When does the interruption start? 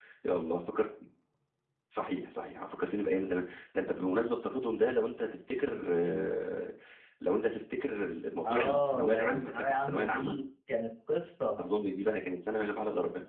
8.4 s

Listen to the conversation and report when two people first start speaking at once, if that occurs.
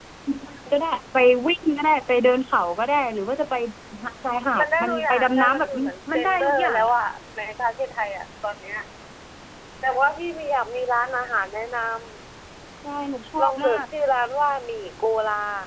4.6 s

